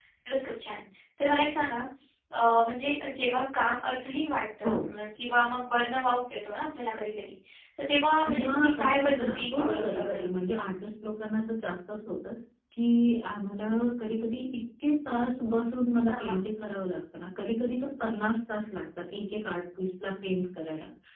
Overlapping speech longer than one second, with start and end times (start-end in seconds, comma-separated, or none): 8.2-10.3